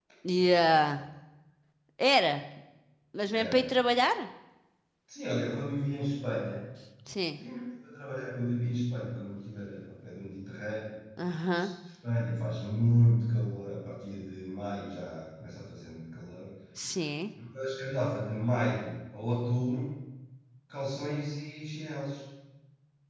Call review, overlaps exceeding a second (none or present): none